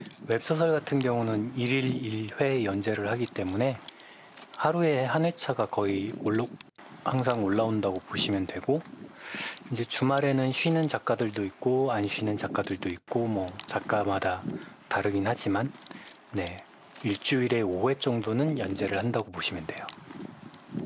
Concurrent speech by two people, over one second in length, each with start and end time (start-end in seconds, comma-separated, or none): none